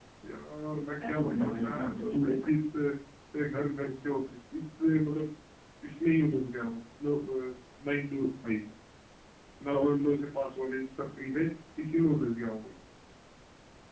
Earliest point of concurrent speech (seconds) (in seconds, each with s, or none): 1.0 s